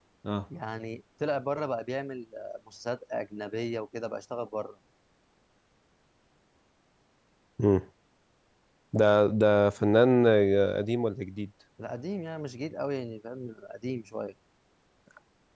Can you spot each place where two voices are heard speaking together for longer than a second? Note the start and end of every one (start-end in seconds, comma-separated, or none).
none